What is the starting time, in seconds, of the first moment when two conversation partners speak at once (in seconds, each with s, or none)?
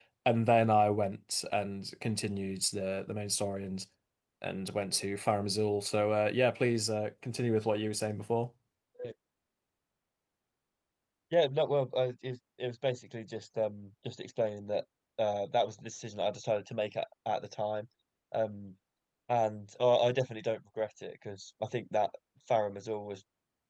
none